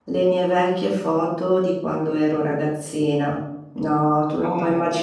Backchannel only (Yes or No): Yes